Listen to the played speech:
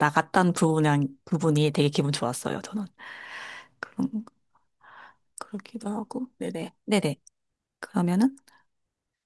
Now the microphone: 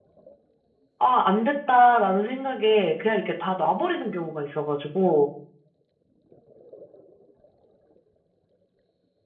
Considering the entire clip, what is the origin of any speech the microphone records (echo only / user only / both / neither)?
user only